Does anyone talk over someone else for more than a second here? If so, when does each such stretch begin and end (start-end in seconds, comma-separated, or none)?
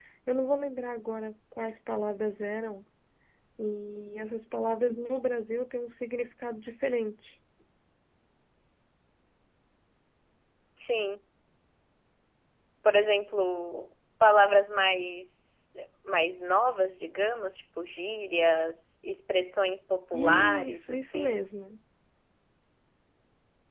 20.1-21.4